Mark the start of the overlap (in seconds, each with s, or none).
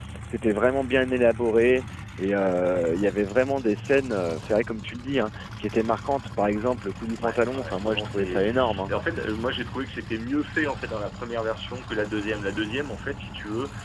7.2 s